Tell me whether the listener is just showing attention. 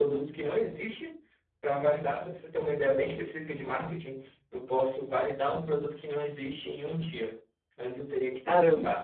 Yes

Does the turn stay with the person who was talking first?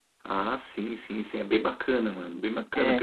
No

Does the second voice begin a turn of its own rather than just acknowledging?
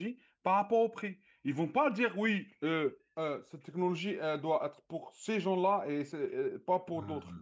No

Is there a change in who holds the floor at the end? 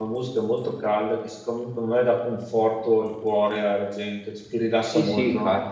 Yes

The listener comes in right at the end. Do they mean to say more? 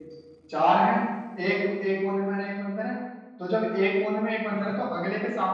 No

